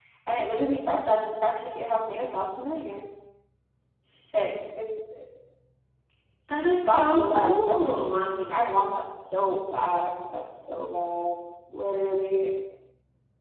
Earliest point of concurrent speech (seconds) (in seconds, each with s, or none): 6.8 s